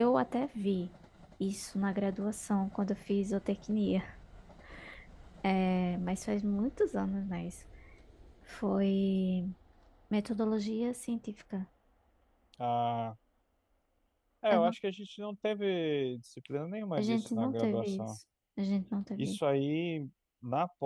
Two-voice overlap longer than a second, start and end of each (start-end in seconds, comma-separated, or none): 17.0-18.2